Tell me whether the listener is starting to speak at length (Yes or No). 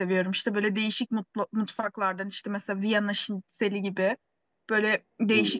No